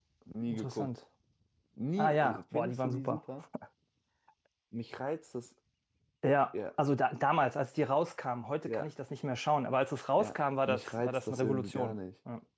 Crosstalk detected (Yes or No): Yes